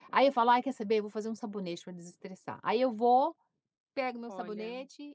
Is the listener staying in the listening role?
Yes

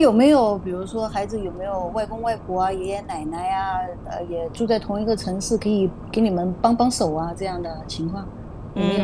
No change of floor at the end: No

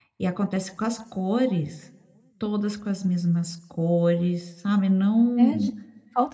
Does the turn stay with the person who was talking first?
No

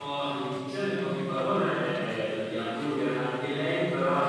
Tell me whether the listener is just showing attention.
Yes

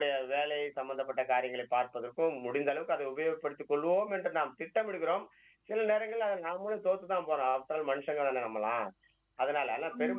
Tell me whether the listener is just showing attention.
Yes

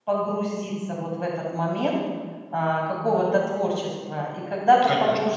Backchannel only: Yes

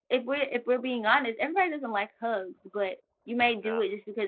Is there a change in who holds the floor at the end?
No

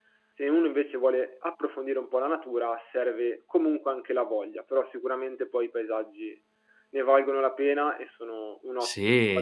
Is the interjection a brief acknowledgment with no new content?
No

